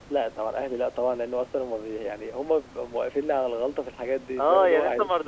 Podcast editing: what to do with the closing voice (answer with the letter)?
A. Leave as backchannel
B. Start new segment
B